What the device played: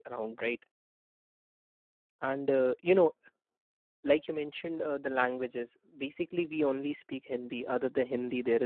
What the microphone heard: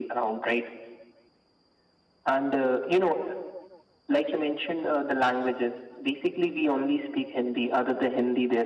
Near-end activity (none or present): none